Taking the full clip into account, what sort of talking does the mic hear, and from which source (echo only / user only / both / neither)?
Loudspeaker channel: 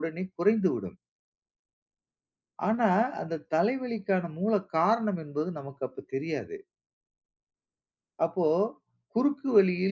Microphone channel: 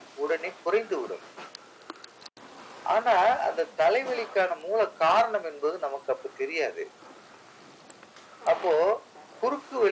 echo only